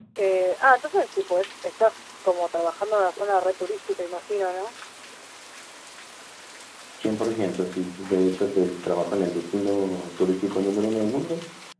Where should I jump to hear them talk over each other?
none

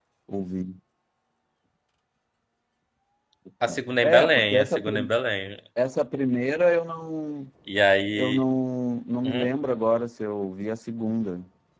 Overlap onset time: 4 s

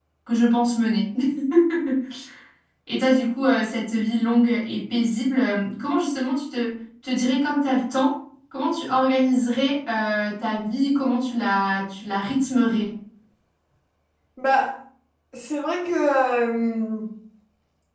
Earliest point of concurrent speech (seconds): none

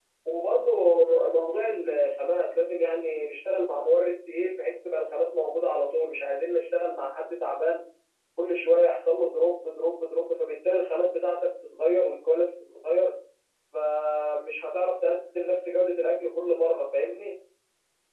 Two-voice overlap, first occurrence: none

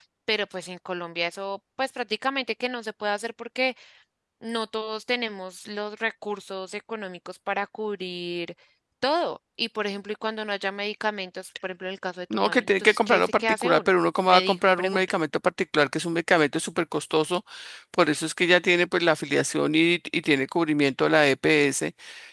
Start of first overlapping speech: 12 s

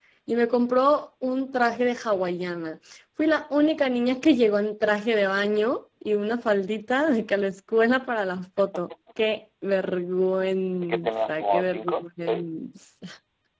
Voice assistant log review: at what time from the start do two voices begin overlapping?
11 s

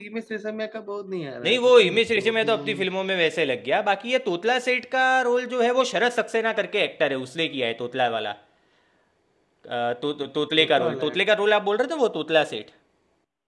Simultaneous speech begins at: 1 s

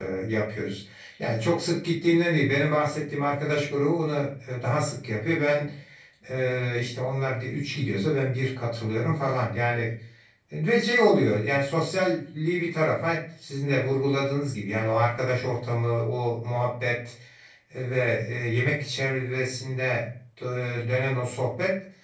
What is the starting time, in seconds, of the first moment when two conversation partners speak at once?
none

